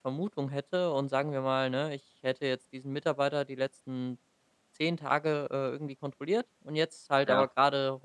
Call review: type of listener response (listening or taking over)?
listening